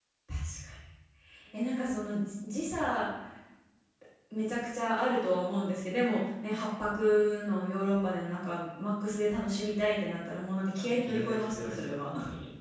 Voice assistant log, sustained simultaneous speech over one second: present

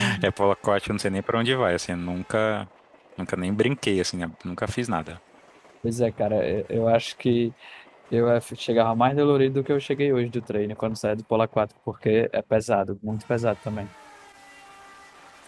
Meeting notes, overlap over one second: none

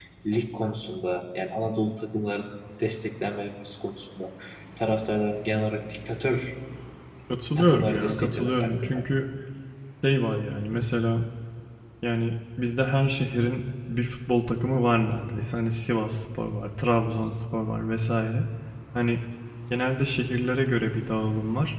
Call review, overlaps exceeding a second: present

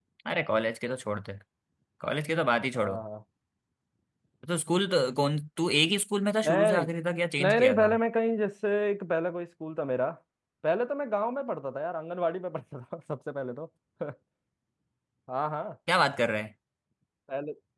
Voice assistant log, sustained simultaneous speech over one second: none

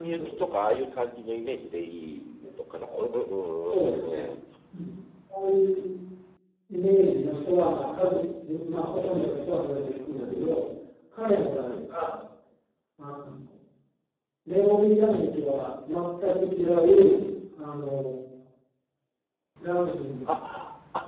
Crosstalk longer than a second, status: none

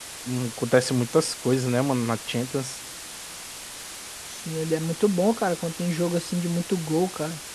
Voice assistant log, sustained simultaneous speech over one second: none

